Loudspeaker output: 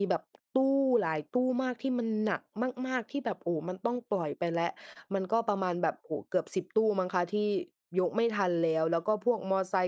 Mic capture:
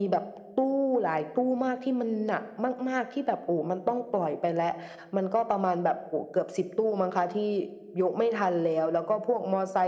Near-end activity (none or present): none